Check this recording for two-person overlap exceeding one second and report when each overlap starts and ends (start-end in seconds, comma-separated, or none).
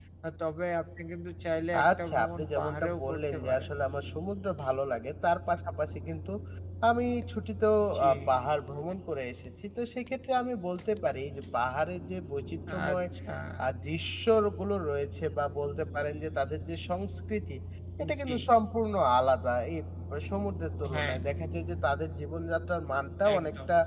1.9-3.7